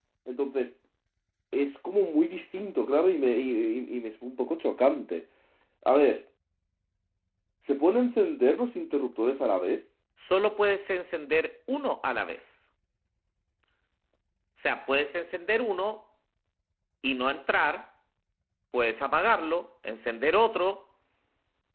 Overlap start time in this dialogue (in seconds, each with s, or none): none